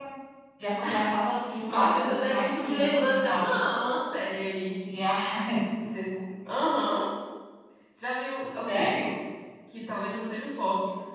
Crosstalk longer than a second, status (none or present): present